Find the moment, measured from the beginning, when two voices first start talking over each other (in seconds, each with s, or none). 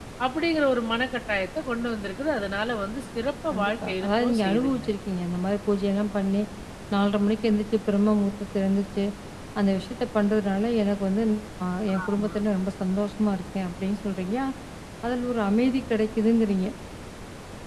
3.5 s